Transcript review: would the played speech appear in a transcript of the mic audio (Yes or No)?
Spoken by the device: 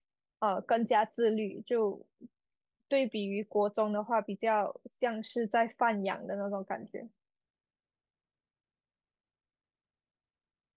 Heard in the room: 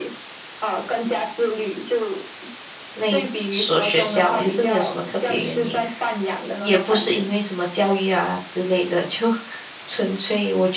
Yes